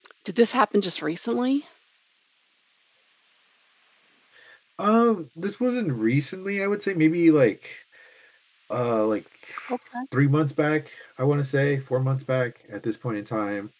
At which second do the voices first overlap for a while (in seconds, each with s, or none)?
none